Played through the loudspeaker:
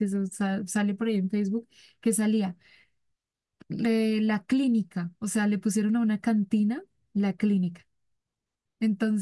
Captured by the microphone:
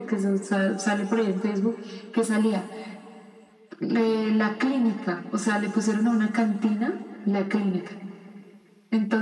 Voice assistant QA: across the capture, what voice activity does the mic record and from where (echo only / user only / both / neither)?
echo only